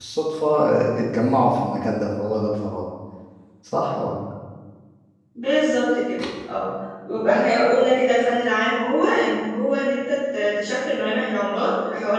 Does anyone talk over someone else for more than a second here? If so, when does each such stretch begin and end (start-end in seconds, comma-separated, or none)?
none